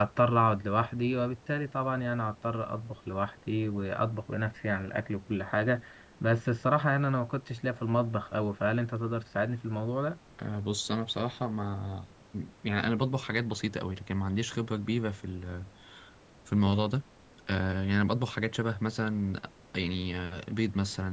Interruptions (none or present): none